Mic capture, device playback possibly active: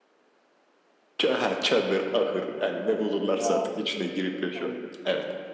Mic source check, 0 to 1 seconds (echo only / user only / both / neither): neither